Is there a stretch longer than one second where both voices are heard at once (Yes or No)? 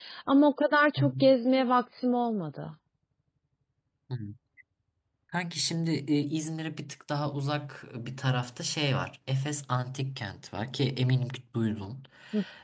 No